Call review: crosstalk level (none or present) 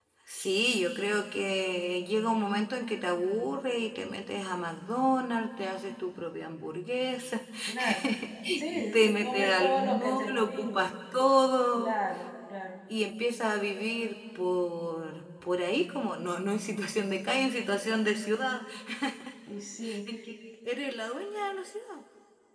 present